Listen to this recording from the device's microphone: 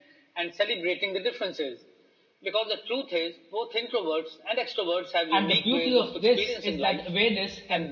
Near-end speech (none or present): present